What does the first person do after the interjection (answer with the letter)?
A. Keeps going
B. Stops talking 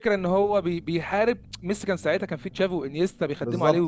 B